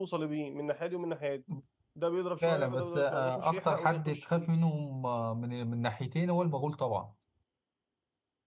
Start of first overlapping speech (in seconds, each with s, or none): 2.4 s